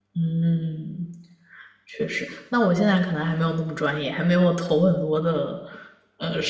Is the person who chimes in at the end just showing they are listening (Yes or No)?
Yes